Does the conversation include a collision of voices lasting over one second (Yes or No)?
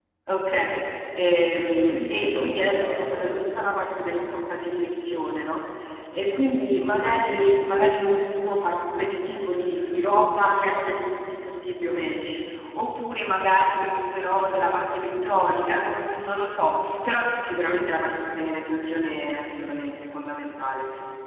Yes